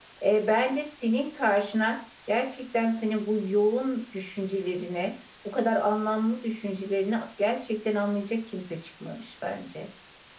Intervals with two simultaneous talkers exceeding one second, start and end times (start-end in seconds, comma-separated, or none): none